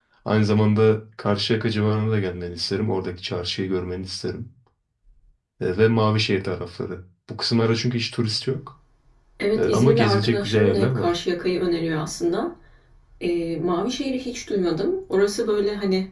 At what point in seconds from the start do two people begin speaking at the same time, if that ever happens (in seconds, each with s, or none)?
9.6 s